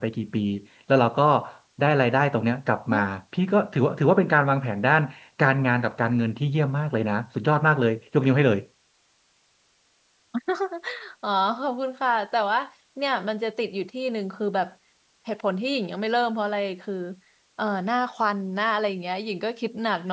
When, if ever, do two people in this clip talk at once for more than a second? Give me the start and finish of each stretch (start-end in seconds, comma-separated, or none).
none